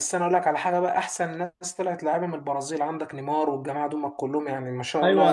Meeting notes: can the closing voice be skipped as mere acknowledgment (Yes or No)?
No